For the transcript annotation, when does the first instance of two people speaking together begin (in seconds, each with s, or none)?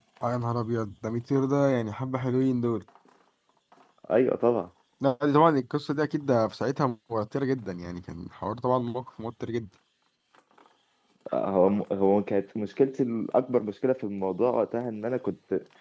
none